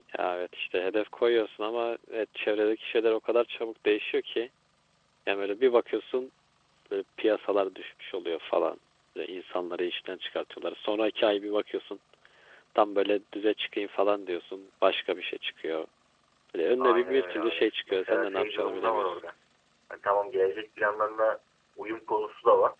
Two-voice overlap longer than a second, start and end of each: 16.8-19.2

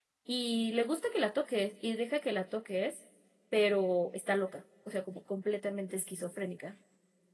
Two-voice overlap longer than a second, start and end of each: none

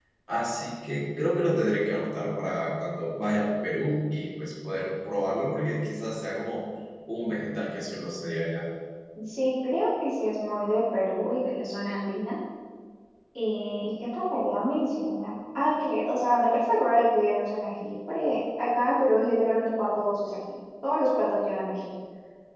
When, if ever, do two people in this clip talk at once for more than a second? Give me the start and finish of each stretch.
none

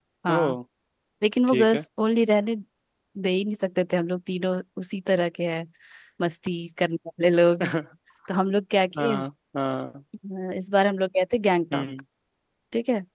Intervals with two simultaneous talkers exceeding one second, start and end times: none

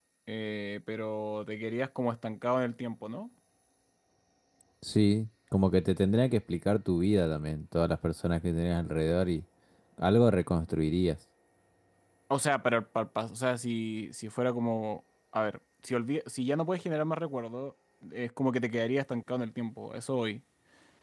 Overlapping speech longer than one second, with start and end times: none

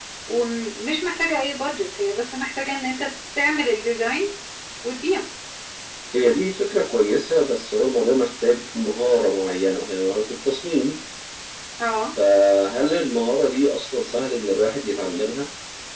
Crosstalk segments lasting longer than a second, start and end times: none

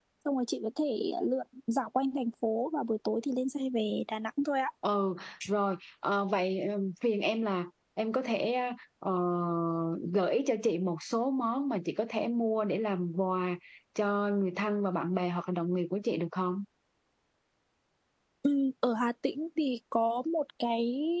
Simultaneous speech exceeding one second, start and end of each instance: none

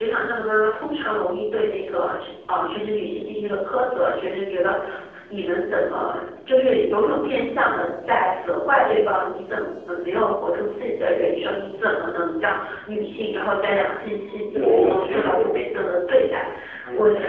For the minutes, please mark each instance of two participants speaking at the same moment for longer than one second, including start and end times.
14.5-15.8

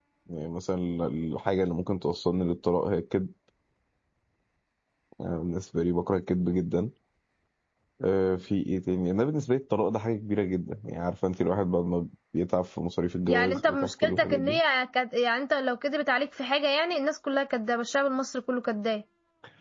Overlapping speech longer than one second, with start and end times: 13.3-14.6

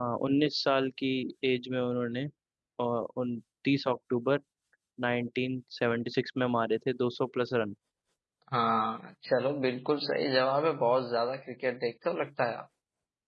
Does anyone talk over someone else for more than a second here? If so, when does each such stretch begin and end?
none

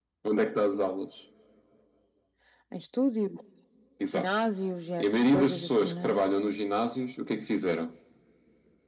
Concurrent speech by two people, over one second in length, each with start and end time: 5.0-6.2

